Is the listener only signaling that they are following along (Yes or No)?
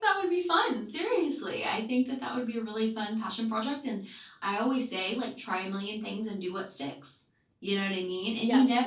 Yes